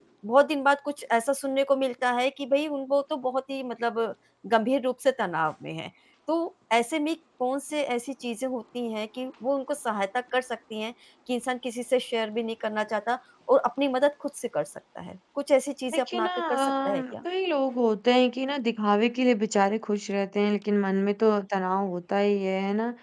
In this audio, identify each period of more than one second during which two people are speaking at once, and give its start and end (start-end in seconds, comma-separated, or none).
15.9-17.1